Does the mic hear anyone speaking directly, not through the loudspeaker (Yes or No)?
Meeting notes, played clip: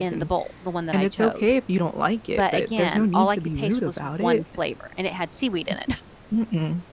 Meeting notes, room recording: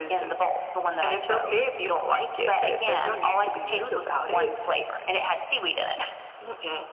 No